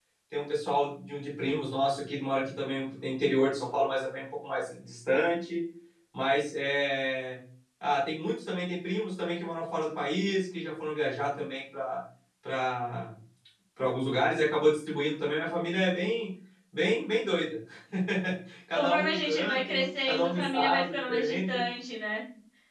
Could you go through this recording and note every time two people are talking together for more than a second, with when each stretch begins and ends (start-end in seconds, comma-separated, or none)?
18.7-21.6